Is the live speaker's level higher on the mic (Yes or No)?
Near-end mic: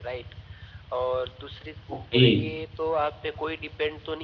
Yes